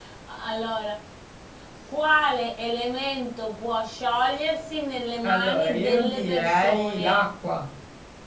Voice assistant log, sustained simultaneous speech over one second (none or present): present